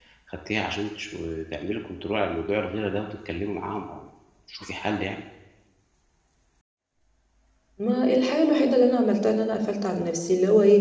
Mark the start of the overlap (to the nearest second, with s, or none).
none